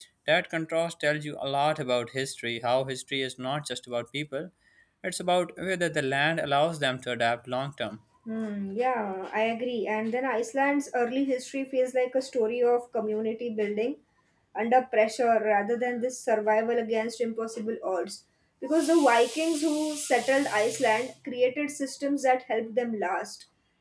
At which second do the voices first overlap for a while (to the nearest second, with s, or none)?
none